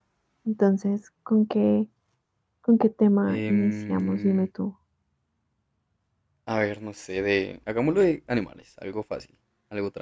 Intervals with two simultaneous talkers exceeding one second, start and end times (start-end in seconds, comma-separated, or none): 3.3-4.5